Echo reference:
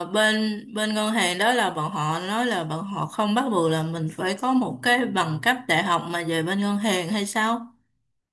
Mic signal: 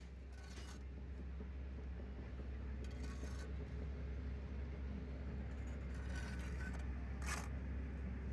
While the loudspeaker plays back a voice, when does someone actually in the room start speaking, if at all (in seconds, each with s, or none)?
none